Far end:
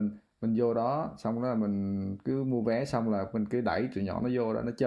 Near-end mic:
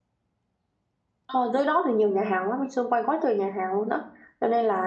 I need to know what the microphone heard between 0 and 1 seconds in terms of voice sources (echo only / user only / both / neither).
neither